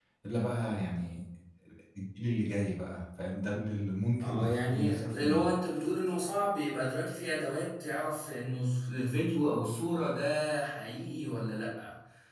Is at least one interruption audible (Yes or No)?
Yes